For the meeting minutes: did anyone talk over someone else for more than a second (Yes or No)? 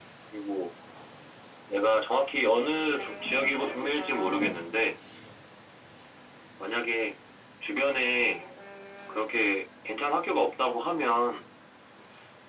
Yes